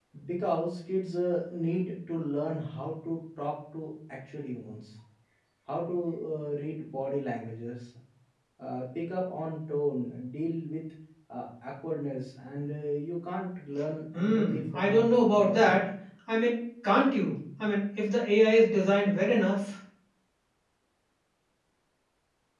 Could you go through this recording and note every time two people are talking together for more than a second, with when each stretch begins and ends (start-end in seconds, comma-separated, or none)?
14.2-15.8